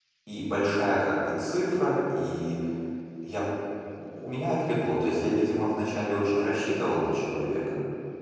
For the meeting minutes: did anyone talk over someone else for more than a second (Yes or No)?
No